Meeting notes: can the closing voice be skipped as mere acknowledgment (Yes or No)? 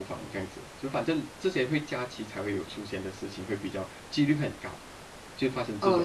No